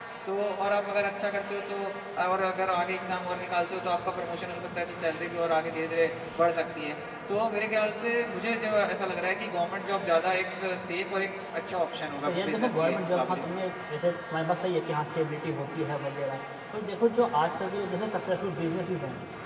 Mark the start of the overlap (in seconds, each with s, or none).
12.3 s